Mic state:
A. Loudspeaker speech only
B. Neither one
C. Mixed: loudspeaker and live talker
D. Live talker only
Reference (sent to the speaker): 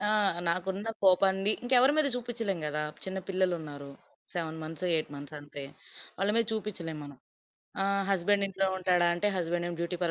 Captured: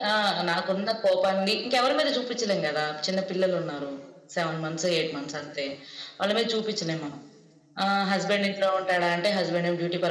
A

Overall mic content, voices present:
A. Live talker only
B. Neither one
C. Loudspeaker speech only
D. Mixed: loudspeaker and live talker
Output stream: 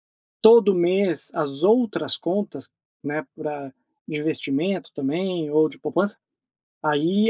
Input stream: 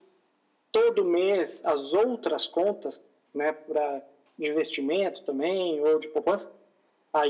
C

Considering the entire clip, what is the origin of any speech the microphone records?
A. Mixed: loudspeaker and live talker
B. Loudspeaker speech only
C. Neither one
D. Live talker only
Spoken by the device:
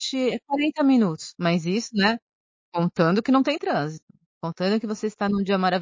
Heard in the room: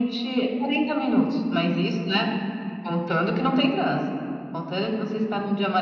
B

